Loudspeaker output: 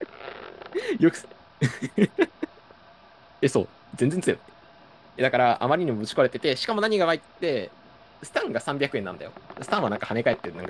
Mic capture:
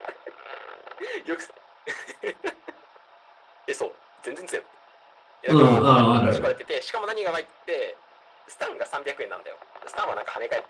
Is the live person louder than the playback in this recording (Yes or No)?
Yes